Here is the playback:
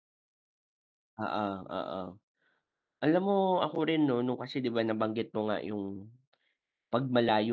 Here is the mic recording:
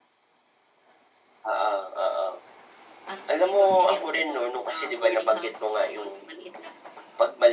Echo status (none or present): present